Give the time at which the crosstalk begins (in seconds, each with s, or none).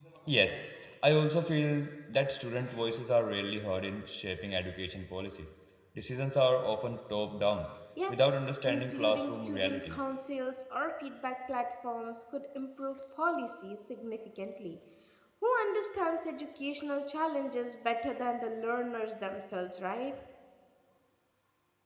8.7 s